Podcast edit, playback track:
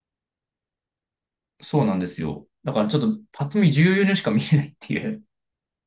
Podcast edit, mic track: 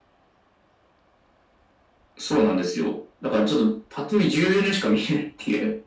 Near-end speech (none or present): none